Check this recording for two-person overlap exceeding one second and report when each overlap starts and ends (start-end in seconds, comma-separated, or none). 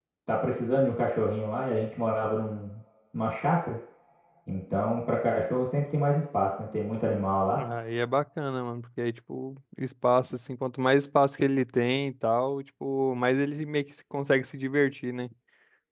none